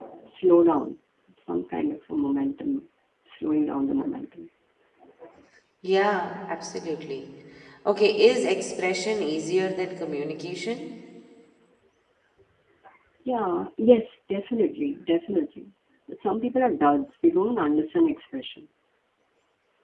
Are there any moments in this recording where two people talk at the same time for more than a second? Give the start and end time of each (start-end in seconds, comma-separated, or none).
none